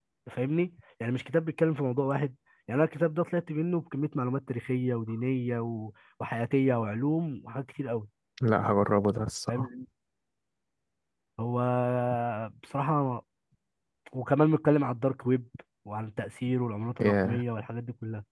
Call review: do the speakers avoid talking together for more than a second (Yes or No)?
Yes